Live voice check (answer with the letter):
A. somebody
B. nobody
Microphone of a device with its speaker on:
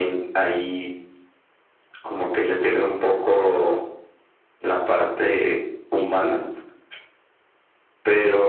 B